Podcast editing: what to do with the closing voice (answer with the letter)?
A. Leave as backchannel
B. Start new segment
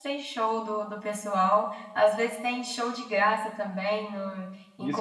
B